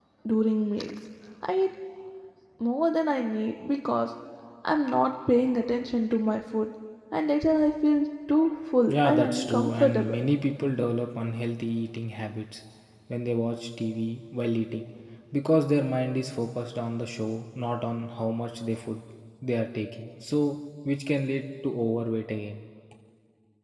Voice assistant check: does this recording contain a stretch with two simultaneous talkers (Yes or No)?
Yes